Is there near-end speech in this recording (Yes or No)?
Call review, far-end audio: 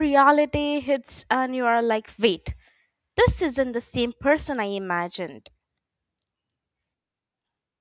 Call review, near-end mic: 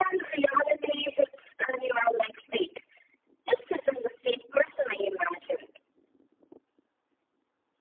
No